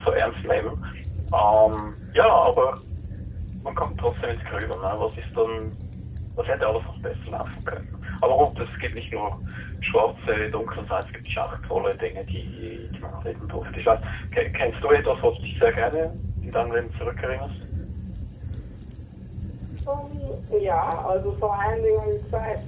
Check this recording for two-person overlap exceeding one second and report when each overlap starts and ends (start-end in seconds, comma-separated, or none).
none